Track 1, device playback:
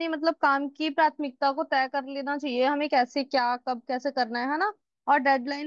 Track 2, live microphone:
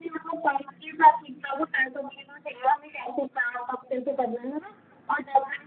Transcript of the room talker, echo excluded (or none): none